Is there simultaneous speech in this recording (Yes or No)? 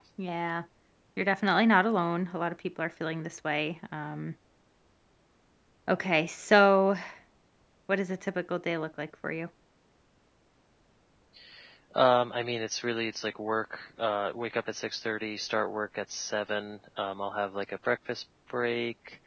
No